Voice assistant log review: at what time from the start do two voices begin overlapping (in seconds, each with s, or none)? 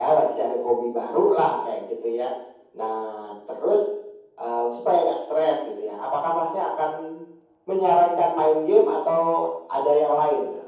none